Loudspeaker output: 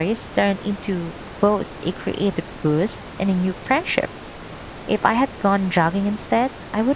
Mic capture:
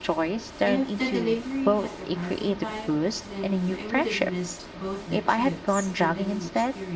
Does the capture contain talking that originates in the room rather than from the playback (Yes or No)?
Yes